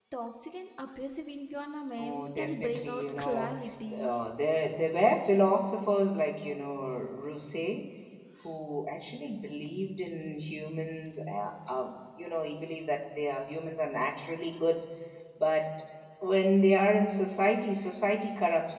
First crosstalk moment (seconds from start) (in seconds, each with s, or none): 2.0 s